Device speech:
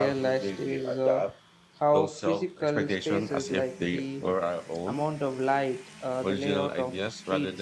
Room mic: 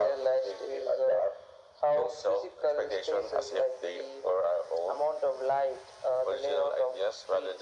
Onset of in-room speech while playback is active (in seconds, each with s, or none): none